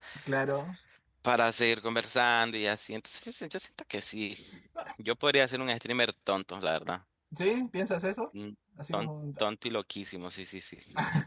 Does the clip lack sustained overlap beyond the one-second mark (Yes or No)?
Yes